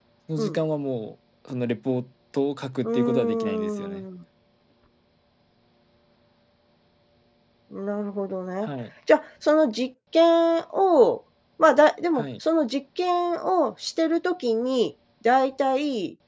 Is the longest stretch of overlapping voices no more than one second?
No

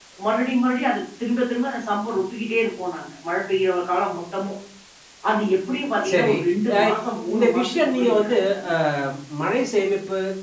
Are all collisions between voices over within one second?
No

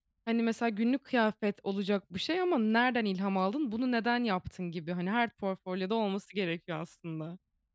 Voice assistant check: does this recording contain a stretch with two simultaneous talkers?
No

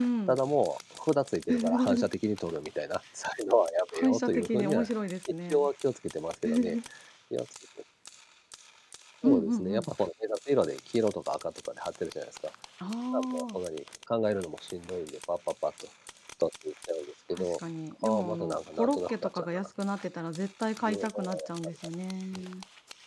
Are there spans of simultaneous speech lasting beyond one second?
Yes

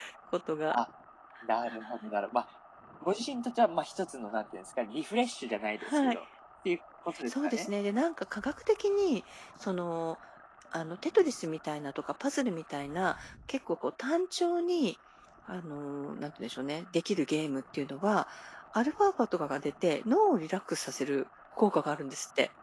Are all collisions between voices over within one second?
Yes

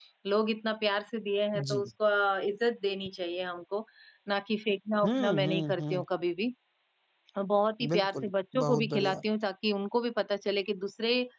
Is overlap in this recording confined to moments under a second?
No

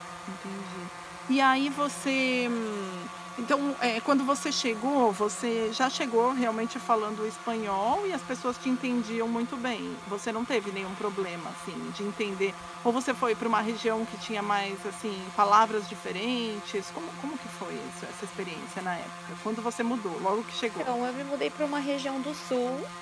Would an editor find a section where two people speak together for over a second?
No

